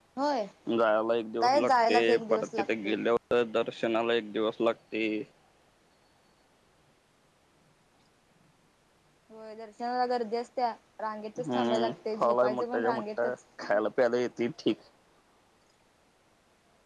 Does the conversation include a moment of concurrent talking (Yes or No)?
Yes